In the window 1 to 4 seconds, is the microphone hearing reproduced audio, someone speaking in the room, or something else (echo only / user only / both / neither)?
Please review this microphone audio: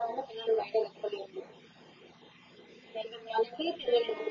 echo only